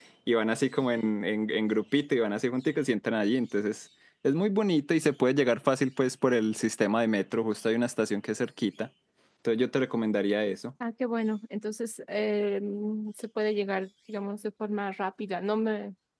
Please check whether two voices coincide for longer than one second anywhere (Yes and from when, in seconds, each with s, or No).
No